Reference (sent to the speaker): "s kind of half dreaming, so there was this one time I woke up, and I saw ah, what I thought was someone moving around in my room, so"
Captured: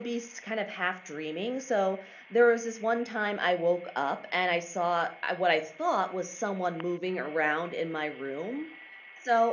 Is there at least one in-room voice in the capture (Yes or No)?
No